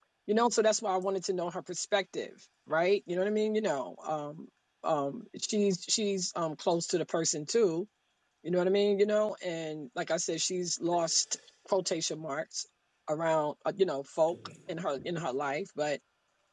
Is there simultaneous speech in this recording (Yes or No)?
No